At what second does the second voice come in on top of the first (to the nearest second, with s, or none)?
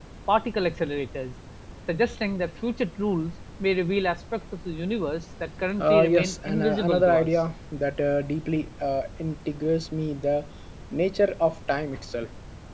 6 s